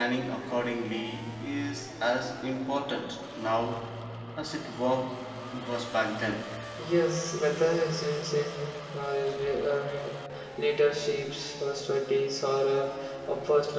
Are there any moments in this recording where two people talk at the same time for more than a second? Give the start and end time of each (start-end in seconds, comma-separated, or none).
none